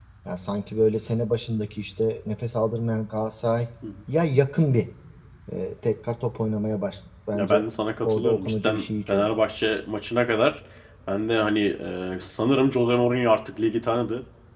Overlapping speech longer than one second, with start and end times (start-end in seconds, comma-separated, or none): 8.0-9.3